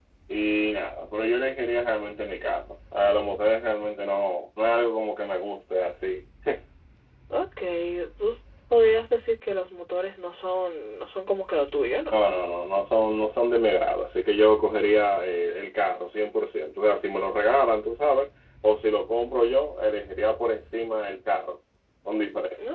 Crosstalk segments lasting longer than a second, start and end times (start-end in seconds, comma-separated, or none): none